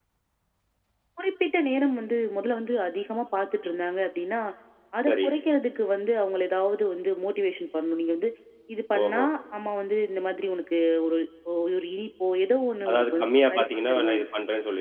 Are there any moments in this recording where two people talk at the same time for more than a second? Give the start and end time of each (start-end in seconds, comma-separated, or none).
12.9-14.2